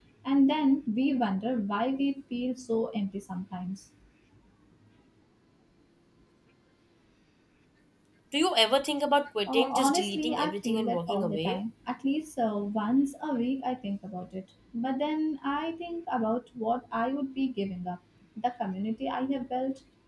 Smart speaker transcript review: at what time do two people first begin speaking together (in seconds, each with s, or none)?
9.5 s